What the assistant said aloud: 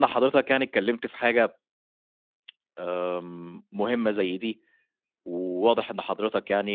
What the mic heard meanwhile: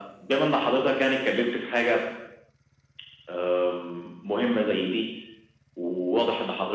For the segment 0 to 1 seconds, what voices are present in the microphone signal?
echo only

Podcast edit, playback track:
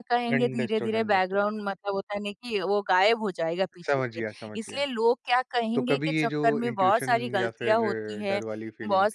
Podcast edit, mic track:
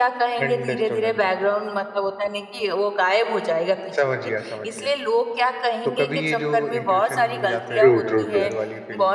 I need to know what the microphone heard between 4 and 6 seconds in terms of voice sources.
echo only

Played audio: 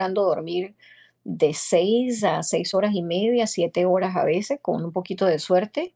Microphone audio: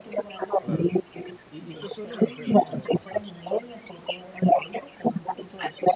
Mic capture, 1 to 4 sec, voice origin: both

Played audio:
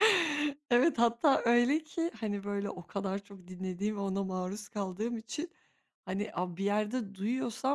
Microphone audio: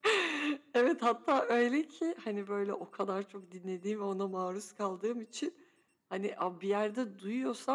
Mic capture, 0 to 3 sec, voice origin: echo only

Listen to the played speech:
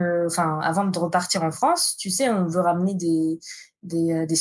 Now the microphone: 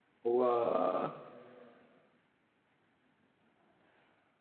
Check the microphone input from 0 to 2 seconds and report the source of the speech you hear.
user only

